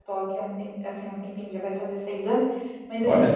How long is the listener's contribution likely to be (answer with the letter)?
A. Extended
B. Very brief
B